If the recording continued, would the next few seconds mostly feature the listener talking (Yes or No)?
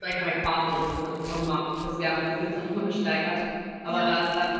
No